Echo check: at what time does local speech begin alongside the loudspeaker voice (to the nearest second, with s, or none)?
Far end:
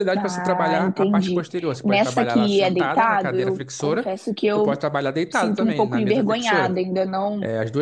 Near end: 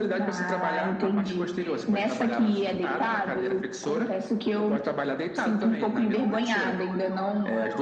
none